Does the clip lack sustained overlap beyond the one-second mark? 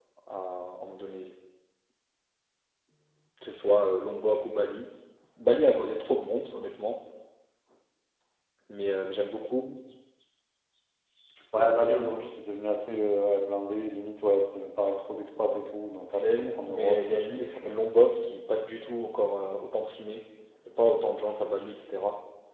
No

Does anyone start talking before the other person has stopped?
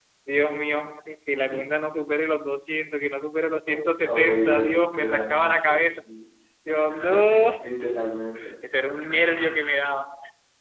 Yes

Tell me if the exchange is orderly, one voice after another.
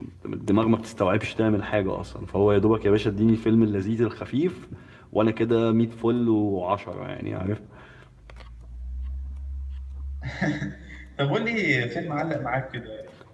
Yes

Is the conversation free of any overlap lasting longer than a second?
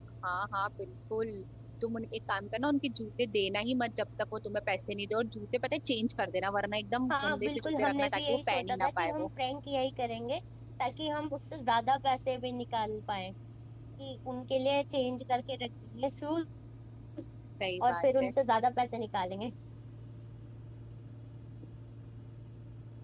No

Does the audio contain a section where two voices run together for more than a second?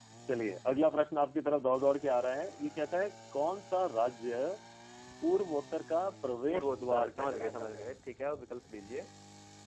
Yes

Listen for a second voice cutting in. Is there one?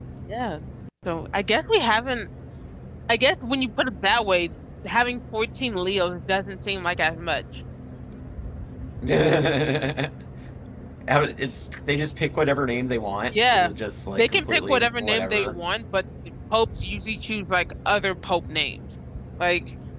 Yes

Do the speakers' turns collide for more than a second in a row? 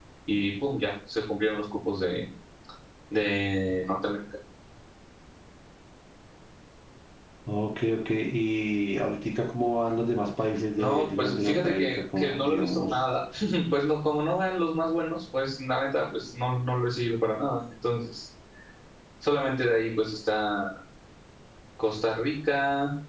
Yes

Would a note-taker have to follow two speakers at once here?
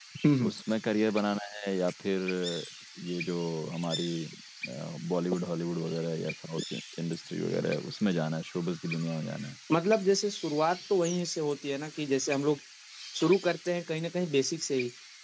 No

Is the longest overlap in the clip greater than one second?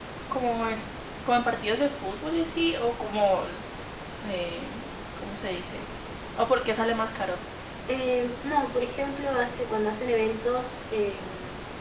No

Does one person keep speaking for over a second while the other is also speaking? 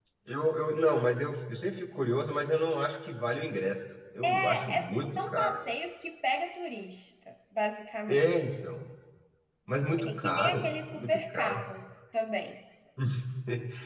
Yes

